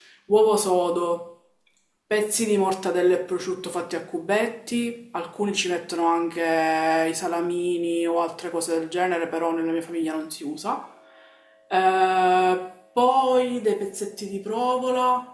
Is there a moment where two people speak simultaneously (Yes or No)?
No